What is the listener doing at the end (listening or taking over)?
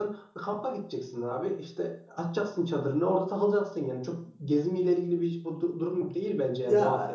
taking over